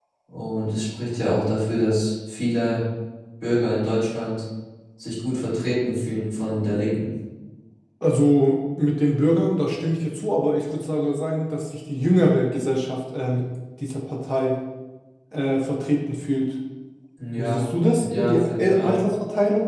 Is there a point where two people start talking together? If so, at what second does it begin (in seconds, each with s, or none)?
17.4 s